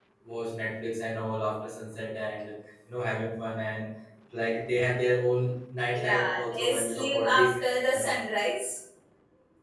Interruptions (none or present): present